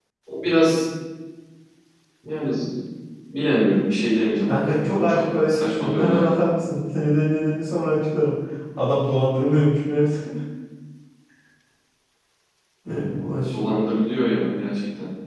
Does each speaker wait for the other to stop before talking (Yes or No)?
No